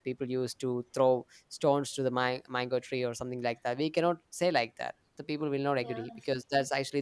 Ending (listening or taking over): listening